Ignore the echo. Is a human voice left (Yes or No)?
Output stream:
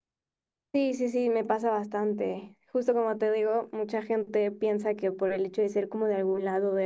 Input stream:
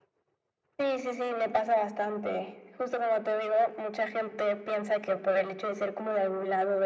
No